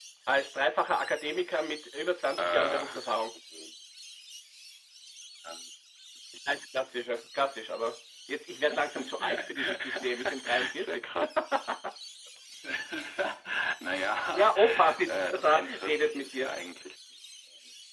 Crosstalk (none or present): present